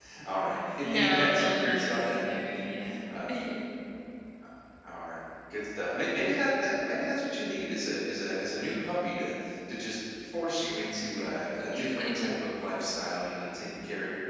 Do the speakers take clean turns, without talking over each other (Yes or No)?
No